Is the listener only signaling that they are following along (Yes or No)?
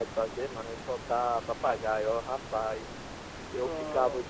Yes